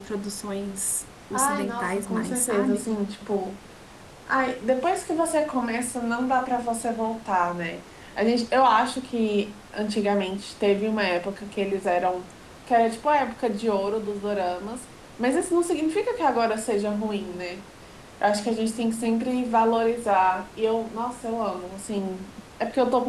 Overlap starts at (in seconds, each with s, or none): 1.3 s